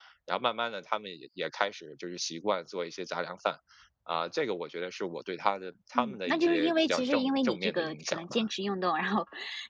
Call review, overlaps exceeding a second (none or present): present